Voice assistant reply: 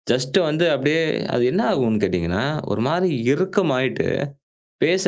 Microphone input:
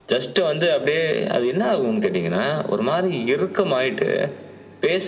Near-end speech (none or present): none